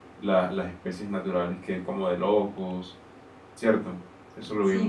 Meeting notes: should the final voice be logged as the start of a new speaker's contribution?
Yes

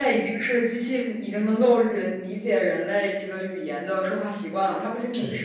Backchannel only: Yes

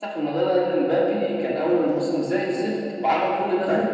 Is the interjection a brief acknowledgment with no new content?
Yes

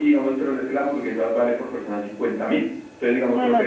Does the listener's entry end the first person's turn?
No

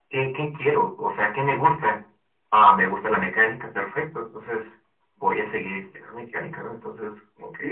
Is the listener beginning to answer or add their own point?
Yes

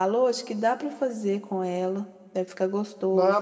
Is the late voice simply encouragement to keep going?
No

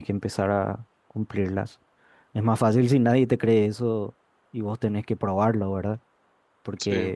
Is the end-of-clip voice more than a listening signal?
No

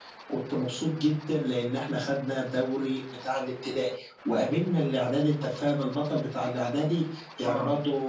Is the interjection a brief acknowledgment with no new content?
Yes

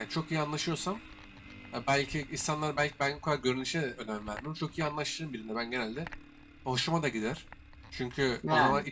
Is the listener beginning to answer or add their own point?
No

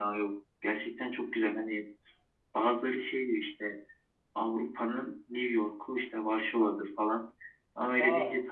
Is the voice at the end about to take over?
No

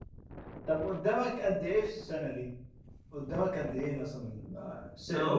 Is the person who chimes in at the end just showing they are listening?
No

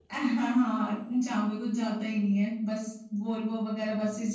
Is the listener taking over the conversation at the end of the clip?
No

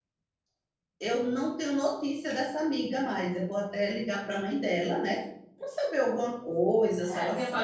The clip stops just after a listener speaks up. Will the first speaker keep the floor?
No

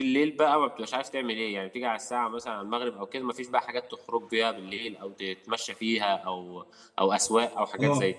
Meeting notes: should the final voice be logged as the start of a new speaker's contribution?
Yes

